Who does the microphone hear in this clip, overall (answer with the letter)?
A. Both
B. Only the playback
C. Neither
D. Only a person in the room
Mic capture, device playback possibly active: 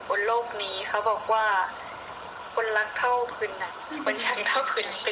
A